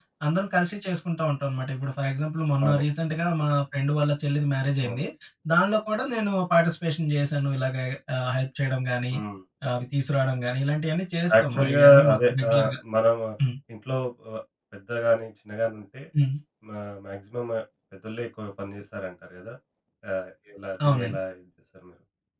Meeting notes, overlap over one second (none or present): present